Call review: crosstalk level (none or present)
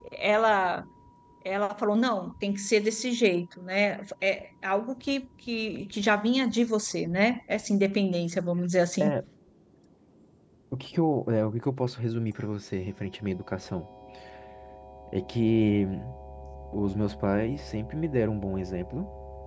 none